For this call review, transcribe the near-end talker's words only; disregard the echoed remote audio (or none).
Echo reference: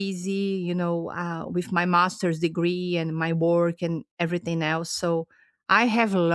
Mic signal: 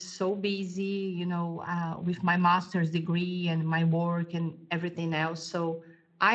none